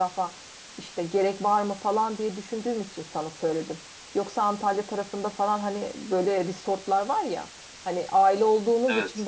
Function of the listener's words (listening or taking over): listening